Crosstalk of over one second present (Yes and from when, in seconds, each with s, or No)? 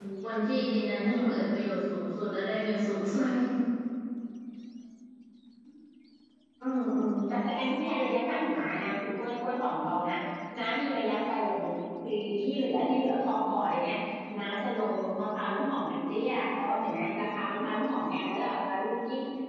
No